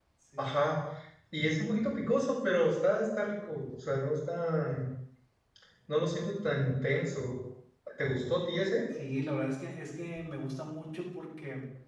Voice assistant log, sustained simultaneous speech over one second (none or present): none